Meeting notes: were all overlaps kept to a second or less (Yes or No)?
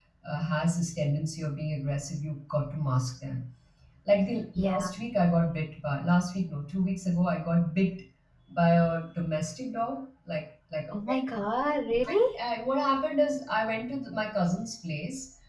Yes